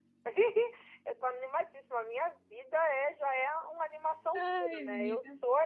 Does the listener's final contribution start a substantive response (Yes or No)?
No